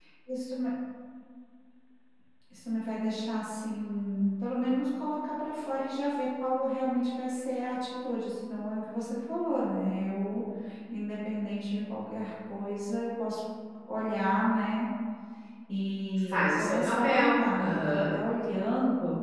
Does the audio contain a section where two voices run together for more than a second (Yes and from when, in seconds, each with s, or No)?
Yes, from 16.3 s